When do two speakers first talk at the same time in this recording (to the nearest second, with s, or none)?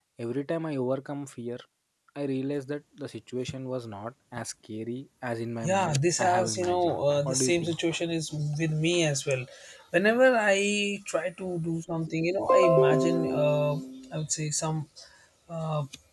6 s